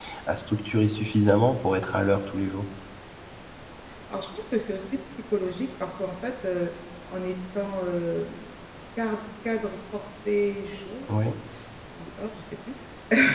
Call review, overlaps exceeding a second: none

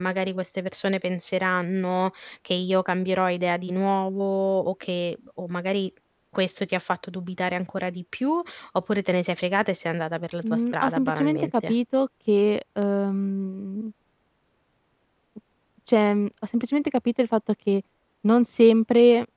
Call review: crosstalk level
present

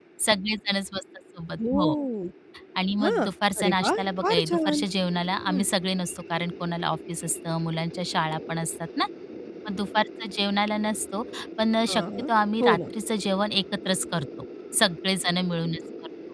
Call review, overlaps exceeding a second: present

